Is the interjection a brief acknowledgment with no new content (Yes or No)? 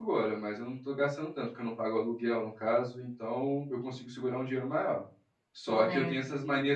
Yes